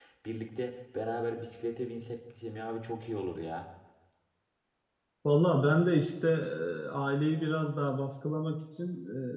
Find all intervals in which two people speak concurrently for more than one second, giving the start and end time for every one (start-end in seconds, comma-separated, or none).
none